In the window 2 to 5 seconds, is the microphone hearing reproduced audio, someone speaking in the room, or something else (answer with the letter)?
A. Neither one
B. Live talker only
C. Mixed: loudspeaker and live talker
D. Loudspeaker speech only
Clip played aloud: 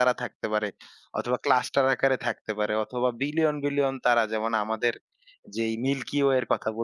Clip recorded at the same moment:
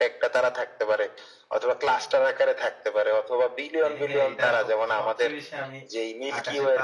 C